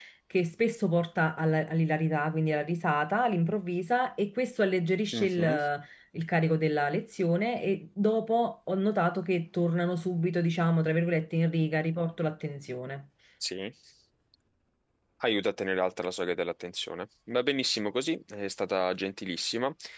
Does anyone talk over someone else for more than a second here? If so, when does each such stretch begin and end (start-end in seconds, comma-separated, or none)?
none